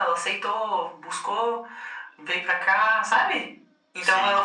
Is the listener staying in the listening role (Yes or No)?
Yes